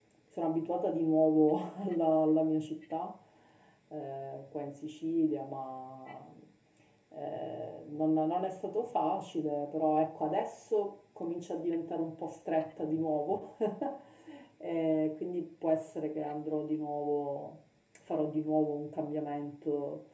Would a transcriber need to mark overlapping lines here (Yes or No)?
No